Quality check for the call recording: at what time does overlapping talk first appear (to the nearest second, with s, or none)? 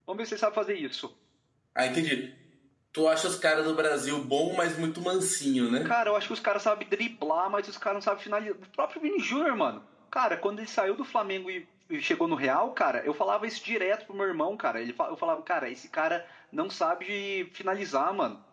none